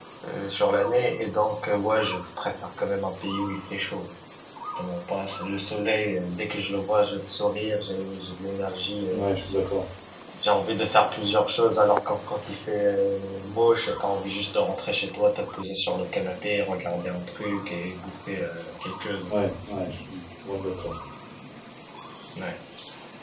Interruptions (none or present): none